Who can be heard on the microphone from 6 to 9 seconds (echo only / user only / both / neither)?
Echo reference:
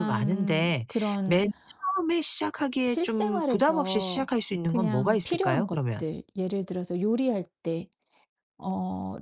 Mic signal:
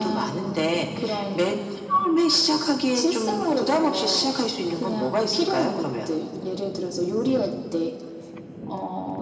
echo only